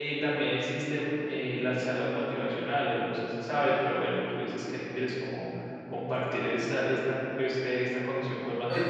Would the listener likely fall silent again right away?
No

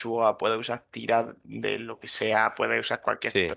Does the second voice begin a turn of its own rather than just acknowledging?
No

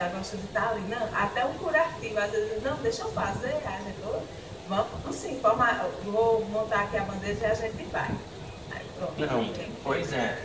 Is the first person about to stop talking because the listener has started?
Yes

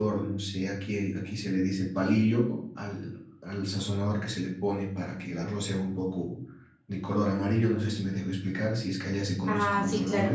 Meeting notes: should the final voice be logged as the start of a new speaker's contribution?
Yes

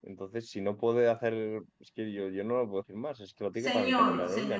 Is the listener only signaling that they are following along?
No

